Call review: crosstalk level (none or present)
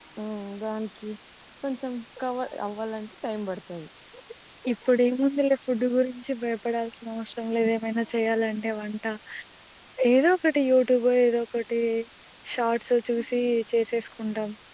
none